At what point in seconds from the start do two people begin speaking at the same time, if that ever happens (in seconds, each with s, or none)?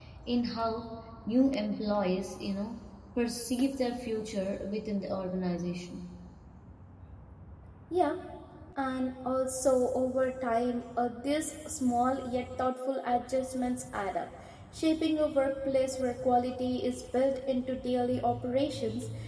none